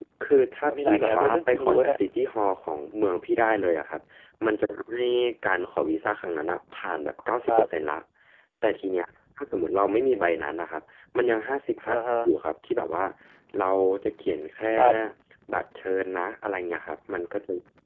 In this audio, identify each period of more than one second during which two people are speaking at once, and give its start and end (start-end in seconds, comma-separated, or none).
0.7-2.0